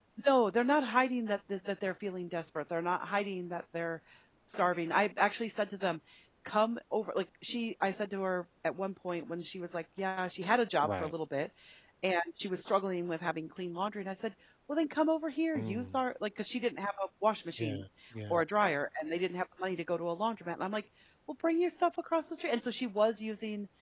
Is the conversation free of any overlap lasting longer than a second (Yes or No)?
Yes